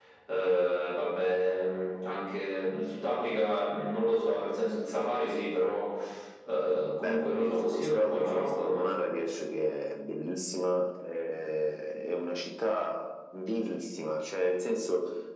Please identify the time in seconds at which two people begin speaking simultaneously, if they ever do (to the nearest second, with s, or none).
7 s